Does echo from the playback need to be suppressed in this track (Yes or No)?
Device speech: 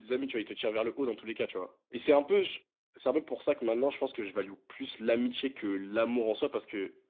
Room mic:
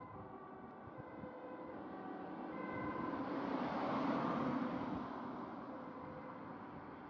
No